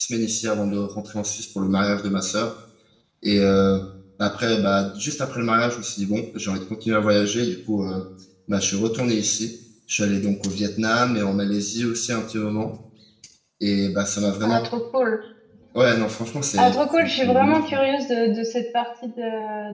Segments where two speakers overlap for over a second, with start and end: 16.6-17.8

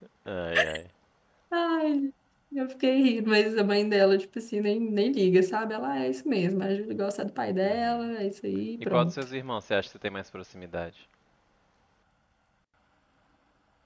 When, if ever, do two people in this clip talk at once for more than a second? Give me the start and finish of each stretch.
none

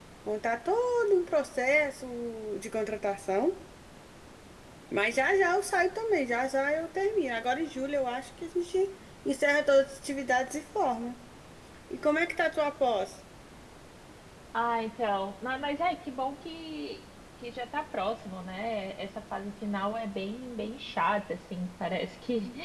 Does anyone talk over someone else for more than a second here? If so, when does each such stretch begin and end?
none

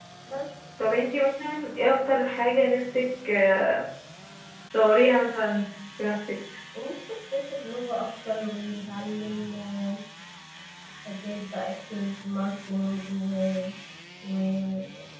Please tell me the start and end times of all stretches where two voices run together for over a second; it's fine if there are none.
none

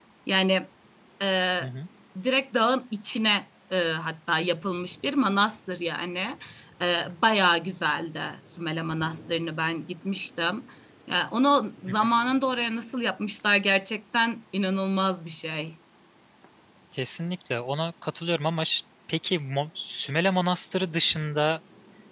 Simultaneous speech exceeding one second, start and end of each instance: none

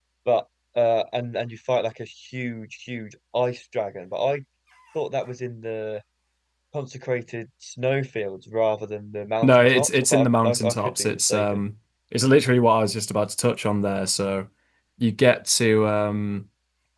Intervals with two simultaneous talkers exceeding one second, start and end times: 9.4-11.6

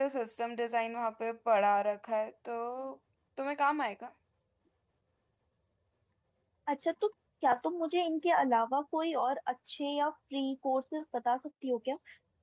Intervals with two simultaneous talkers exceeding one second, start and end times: none

